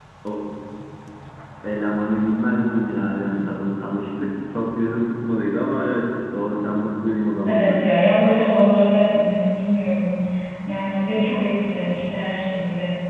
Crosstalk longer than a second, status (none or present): none